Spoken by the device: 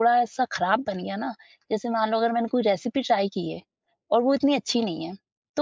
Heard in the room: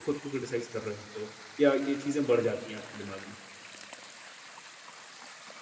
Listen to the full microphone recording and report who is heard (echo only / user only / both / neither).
user only